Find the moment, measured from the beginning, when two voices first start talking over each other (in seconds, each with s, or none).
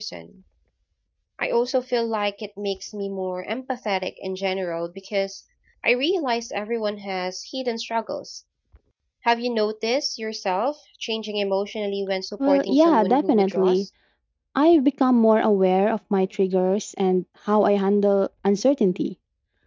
12.4 s